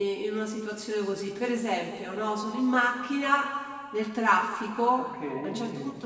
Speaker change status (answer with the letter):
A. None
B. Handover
A